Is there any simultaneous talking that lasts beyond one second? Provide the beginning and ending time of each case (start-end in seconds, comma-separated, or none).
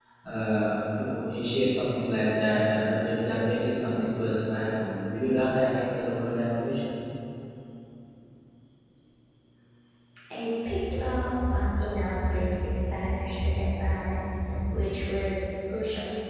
none